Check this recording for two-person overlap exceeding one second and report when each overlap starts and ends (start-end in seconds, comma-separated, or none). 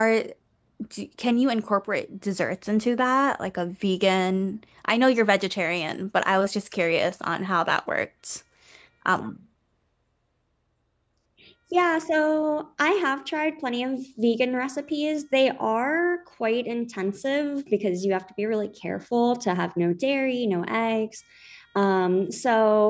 none